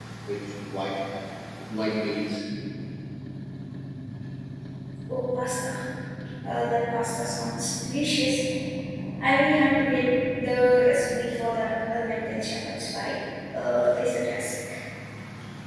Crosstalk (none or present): none